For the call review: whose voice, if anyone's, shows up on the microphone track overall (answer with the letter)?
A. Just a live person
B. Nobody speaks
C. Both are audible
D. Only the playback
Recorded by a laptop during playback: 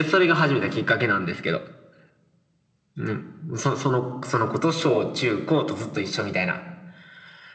C